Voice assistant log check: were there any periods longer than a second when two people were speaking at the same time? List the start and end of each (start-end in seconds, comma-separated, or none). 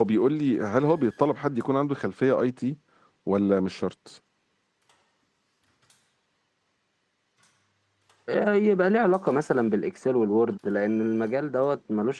none